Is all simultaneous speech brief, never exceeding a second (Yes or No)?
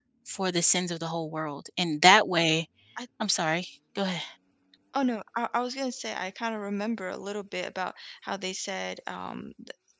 Yes